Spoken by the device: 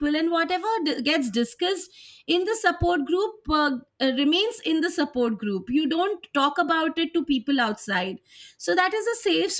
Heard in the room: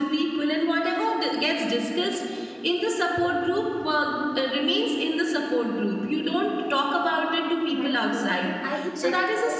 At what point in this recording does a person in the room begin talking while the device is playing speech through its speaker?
8 s

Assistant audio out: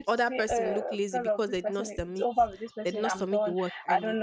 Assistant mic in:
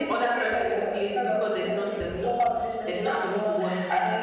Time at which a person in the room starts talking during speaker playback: none

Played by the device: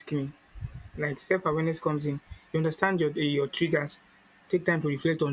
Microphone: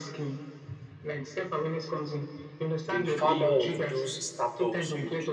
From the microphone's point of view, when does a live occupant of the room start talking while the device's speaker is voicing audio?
3 s

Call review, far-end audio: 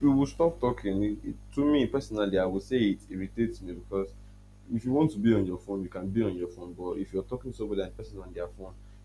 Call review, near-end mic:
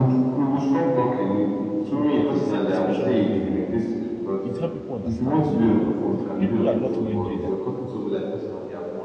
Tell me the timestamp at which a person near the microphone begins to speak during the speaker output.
2 s

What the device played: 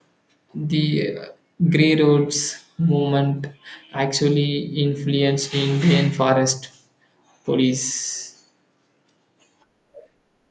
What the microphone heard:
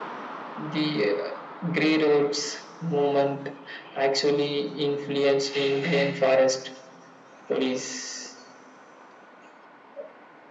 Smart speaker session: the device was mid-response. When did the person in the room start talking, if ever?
none

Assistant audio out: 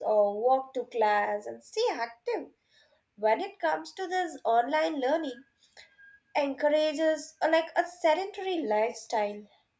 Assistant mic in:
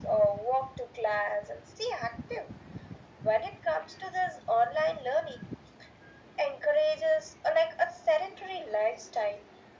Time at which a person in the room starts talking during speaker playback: none

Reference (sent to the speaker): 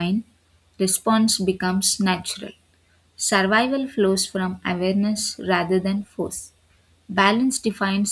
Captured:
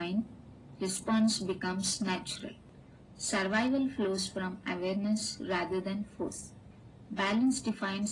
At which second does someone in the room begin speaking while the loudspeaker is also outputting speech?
none

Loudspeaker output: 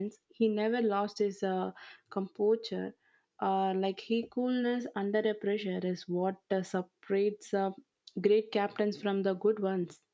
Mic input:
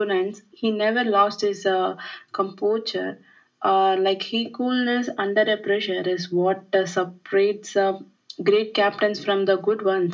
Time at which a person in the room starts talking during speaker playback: none

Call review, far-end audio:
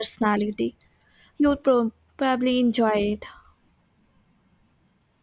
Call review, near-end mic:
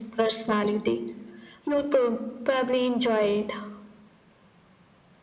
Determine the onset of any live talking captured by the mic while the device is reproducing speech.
none

